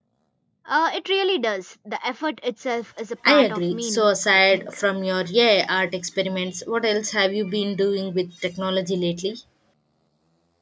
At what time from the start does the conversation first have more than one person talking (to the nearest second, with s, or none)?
3 s